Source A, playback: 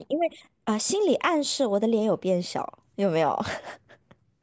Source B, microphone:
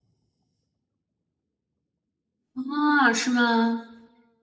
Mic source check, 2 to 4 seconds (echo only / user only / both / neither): user only